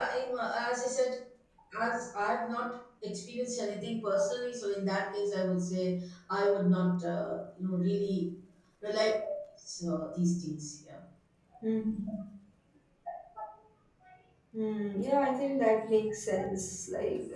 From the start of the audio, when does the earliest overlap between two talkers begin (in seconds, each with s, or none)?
none